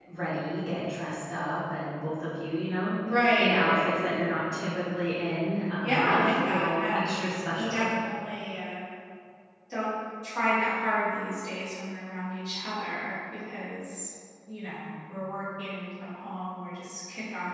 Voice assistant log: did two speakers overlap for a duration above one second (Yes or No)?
Yes